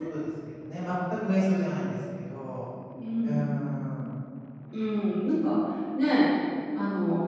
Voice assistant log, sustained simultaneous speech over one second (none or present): none